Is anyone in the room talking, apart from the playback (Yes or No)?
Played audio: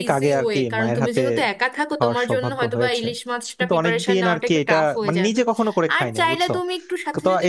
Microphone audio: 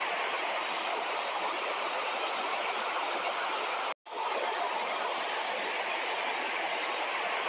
No